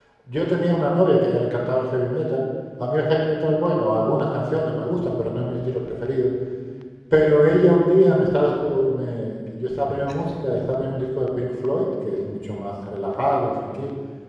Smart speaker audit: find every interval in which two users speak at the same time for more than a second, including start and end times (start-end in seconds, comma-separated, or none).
none